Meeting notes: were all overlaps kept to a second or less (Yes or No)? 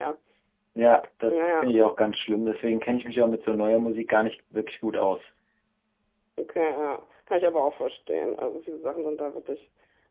Yes